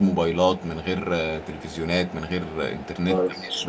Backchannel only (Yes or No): No